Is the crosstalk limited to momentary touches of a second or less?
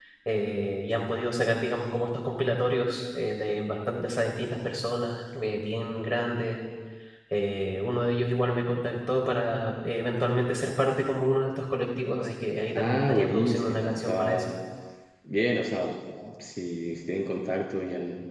No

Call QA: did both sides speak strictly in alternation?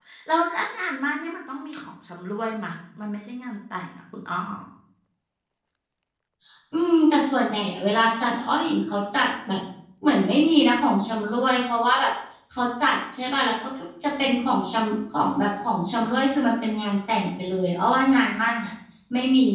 Yes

